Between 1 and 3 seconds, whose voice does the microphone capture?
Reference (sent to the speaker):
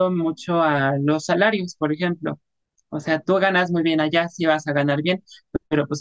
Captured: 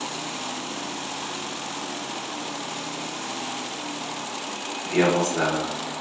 neither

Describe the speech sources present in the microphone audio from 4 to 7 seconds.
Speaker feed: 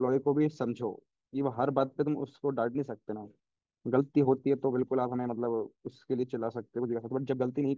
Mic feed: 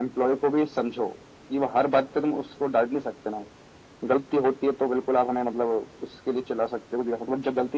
echo only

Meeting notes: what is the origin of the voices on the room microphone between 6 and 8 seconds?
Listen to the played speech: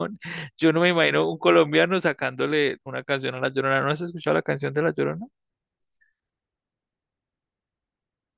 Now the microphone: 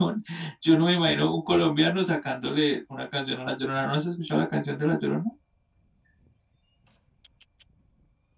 neither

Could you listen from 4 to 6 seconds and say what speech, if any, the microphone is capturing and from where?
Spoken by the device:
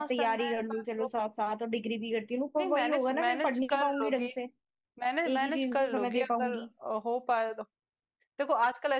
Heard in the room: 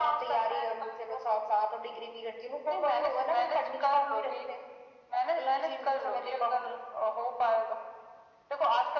echo only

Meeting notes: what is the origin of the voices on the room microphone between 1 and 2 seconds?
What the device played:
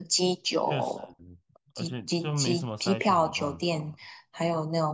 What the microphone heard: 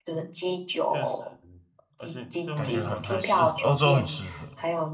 echo only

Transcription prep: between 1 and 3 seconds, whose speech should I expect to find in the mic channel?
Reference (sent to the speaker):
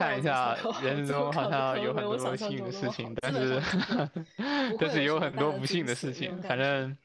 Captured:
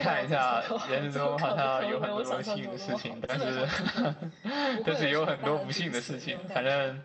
echo only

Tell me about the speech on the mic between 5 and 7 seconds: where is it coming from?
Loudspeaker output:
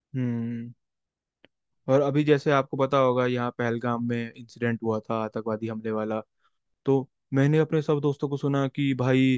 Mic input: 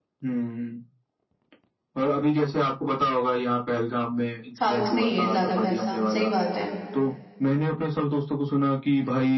both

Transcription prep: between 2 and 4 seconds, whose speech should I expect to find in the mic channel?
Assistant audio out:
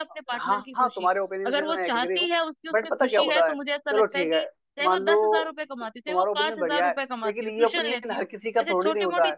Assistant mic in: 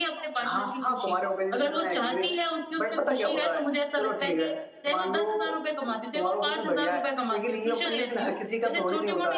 echo only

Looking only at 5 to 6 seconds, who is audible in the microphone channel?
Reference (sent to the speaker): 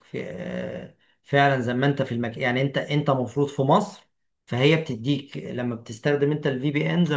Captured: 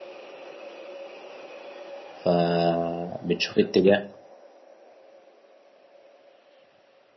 neither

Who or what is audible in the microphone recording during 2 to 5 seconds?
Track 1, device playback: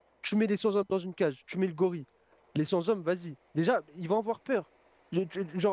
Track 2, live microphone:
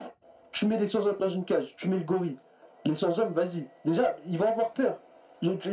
echo only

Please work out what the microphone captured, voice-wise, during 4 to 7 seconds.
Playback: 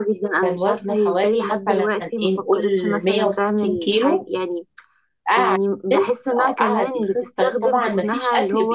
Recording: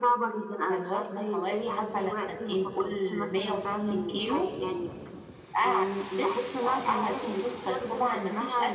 echo only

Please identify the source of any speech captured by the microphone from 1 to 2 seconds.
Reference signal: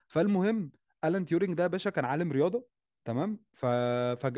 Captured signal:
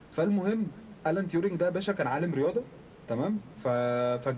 echo only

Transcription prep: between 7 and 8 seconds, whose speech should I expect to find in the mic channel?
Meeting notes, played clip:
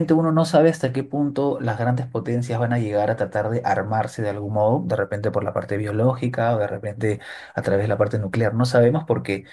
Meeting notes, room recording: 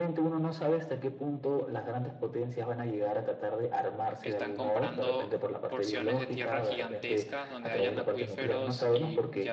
both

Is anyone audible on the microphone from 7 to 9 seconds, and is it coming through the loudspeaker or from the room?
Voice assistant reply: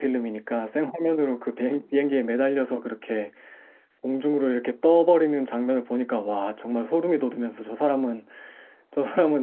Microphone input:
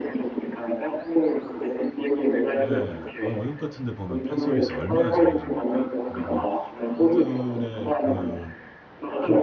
both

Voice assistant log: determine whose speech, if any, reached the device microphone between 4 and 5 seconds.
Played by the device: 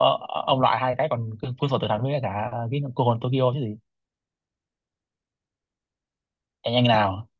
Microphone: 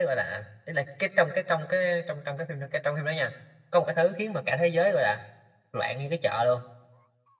user only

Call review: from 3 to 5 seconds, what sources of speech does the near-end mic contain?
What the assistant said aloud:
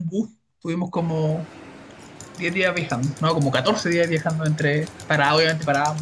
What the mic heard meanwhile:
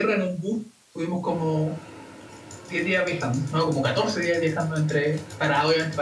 echo only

